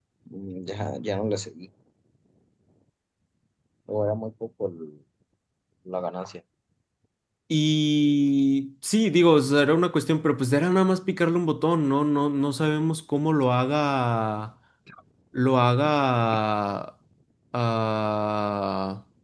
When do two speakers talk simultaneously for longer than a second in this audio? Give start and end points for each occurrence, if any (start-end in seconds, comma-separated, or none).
none